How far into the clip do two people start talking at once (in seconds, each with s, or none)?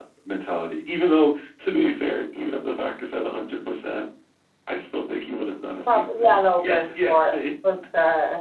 5.9 s